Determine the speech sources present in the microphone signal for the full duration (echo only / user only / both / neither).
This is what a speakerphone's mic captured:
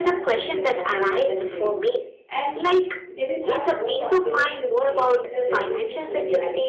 both